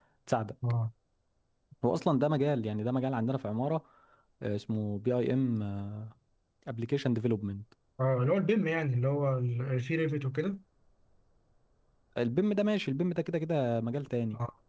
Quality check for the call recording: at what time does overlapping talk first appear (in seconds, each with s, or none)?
none